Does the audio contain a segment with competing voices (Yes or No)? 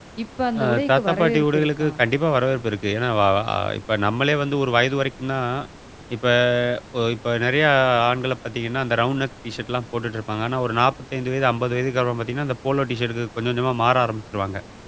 Yes